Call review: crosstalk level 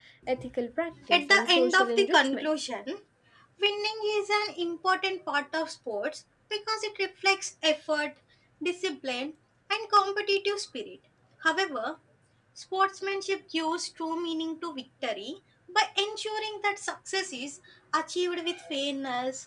present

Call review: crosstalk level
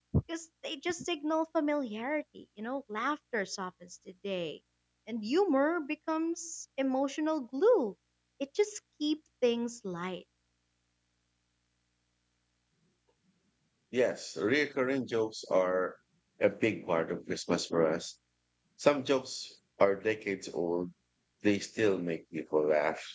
none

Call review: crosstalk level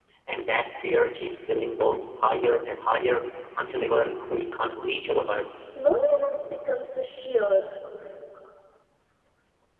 none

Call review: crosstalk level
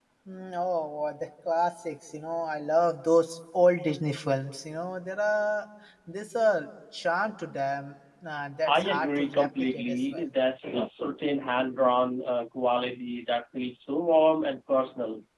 present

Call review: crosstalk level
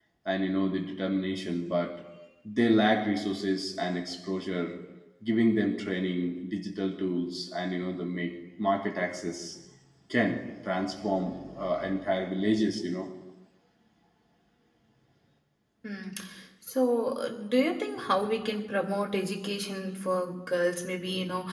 none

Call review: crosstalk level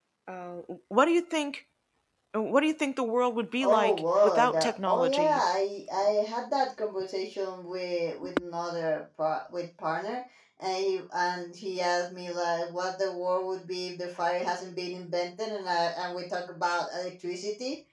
present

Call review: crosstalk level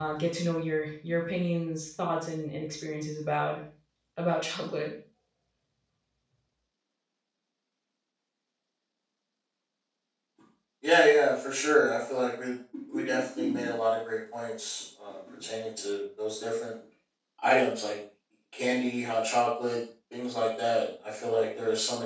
none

